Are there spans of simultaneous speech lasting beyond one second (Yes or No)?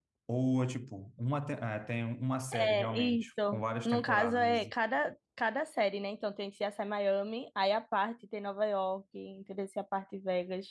Yes